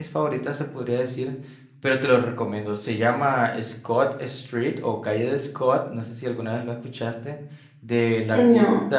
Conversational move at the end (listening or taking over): listening